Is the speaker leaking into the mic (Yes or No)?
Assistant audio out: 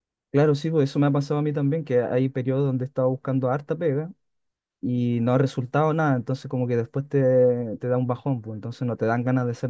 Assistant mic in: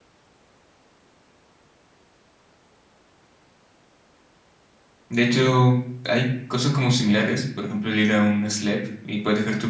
No